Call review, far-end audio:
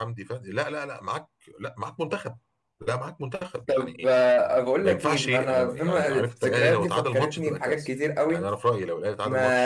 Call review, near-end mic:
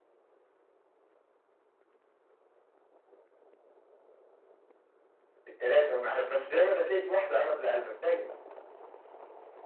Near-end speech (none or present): present